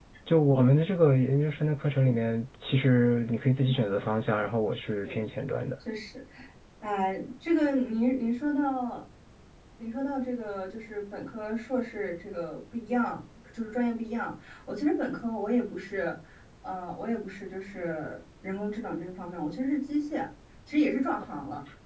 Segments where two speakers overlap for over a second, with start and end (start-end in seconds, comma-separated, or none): none